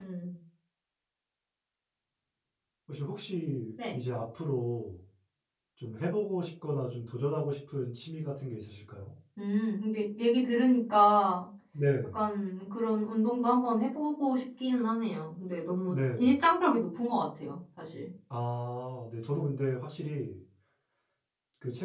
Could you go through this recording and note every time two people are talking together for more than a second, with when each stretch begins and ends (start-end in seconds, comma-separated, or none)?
none